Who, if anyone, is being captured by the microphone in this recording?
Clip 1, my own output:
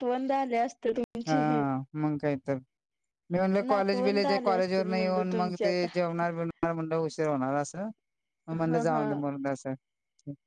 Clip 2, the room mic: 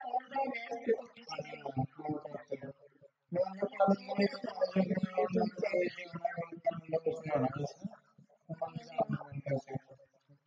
echo only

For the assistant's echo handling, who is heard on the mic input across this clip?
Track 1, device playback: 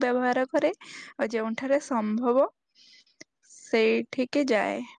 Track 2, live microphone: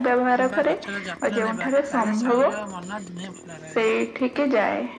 both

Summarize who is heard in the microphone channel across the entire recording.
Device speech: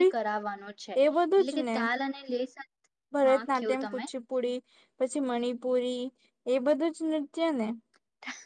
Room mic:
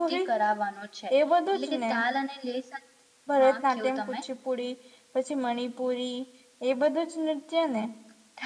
echo only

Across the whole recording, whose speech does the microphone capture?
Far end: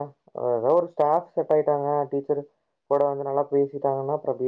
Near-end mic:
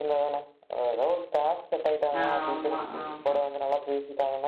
both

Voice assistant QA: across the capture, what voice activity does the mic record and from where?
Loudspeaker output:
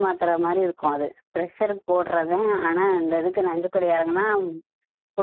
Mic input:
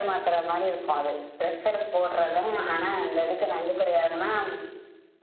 echo only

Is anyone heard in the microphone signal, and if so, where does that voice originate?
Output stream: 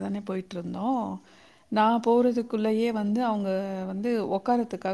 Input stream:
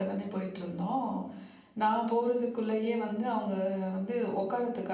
echo only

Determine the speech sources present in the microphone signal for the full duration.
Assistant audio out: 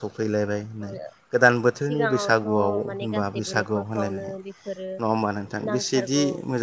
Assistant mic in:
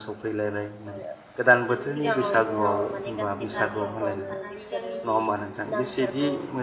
both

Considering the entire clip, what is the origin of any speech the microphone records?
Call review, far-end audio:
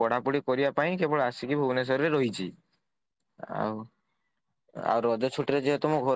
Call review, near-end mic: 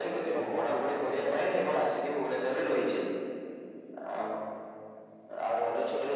both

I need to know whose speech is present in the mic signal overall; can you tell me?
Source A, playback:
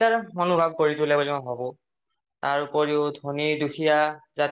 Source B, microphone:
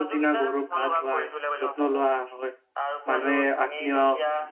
both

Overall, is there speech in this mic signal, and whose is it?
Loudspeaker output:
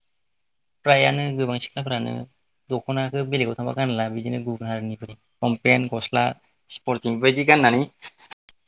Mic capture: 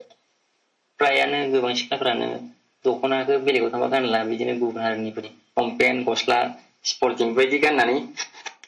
echo only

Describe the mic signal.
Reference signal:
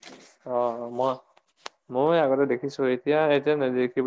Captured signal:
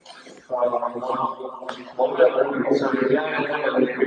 echo only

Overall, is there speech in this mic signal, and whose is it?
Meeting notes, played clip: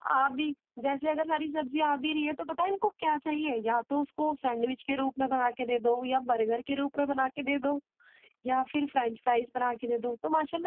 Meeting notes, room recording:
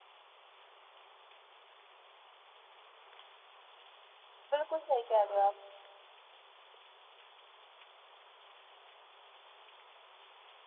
user only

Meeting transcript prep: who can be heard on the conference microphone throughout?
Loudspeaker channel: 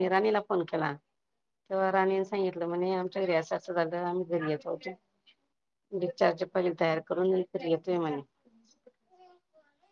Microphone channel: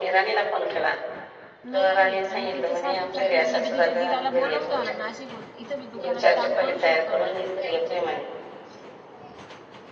both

